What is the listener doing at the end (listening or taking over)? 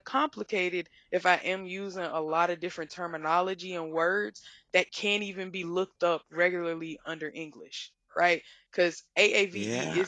listening